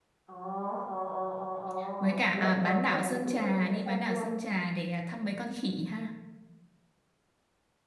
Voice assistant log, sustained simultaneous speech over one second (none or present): present